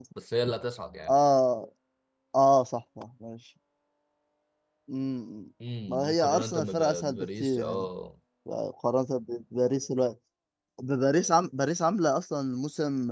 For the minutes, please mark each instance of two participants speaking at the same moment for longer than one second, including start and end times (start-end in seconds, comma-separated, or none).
5.9-7.8